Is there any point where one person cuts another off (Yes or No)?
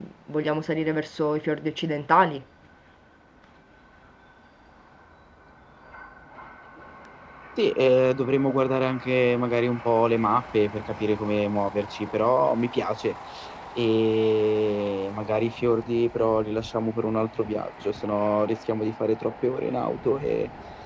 No